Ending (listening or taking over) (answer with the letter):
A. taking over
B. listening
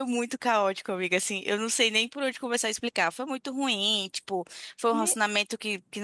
B